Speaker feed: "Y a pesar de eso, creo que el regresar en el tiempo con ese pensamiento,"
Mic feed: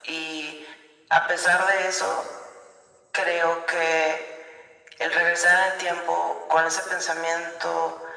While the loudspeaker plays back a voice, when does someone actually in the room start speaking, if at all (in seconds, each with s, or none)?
none